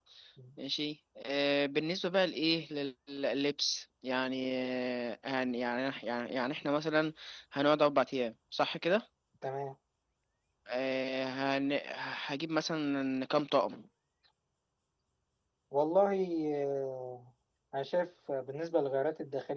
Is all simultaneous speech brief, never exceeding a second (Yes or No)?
Yes